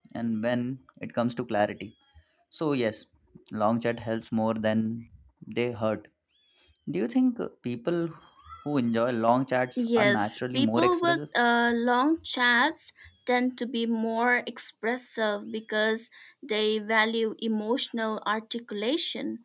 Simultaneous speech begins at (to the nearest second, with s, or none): 10 s